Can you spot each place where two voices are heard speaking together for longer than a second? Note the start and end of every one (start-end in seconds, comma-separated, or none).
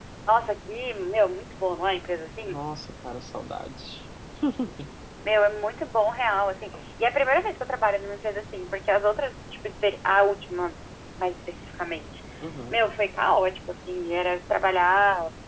none